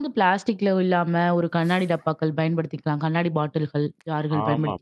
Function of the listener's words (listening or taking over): taking over